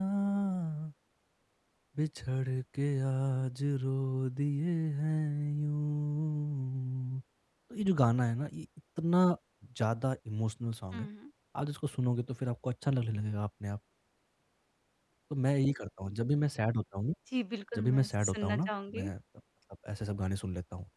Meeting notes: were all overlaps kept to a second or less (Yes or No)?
No